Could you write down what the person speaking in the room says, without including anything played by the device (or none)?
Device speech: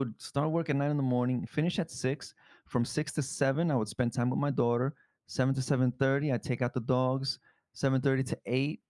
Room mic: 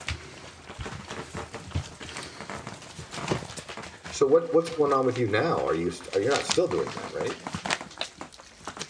So what what's going on with you now? Are you st you're not still doing that, right?